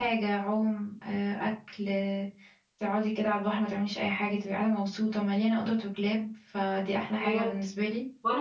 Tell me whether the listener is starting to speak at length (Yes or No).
Yes